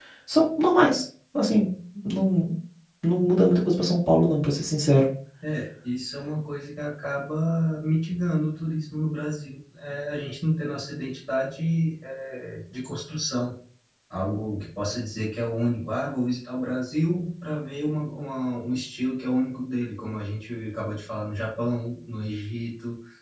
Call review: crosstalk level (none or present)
none